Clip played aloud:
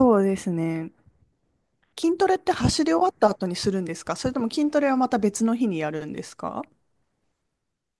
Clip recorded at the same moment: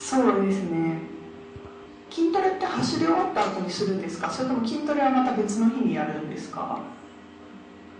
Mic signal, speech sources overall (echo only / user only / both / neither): echo only